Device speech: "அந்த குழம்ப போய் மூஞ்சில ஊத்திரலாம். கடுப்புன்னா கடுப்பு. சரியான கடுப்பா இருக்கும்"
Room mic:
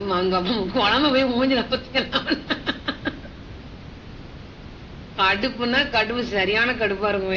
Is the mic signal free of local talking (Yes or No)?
Yes